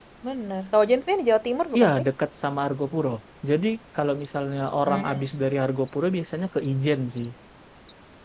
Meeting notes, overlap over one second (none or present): none